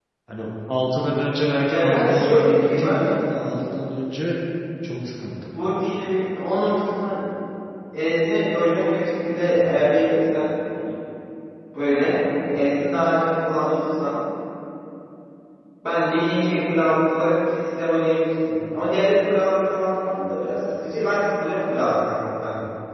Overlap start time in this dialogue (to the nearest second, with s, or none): 2 s